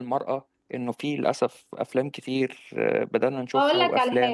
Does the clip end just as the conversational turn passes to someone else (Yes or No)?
Yes